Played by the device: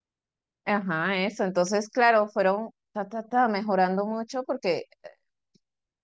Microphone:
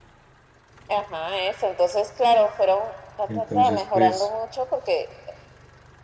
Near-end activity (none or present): present